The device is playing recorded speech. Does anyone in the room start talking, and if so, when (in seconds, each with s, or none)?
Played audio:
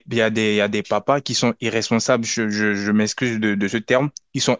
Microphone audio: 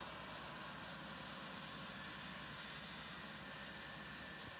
none